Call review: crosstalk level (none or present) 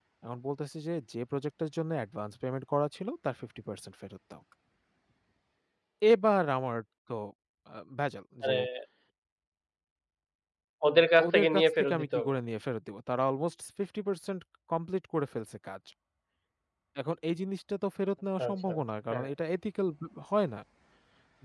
present